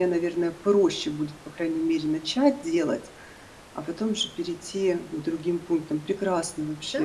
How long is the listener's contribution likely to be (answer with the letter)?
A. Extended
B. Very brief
A